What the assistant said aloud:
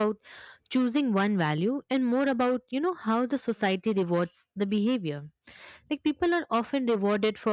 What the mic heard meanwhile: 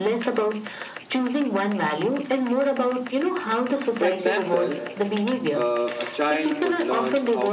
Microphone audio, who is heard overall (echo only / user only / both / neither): both